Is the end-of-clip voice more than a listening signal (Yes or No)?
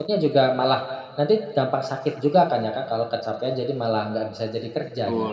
Yes